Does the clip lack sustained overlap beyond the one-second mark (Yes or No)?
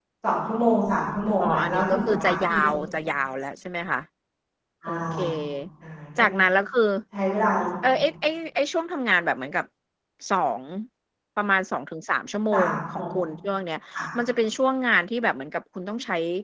No